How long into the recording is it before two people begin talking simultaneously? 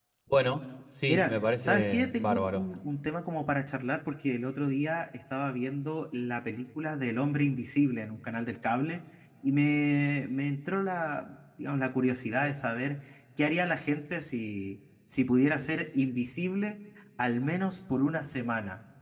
1.1 s

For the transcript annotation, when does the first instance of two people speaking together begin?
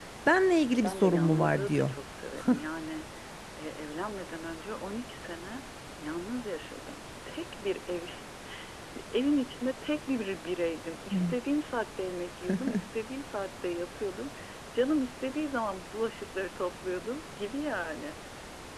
0.7 s

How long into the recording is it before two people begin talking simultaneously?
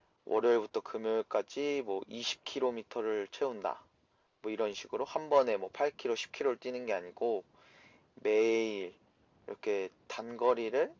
none

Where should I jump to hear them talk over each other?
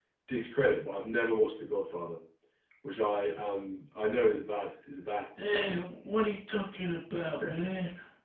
none

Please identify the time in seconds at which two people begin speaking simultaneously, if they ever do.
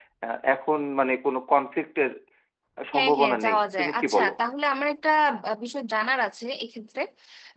2.9 s

